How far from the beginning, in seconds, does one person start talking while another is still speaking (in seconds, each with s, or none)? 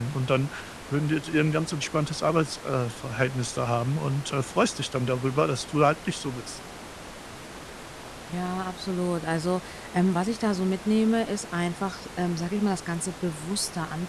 none